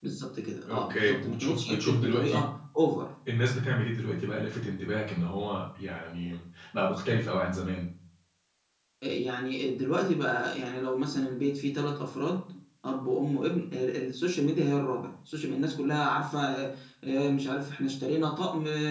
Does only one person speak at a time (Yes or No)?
No